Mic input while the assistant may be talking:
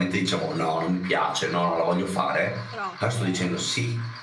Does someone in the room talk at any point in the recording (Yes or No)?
Yes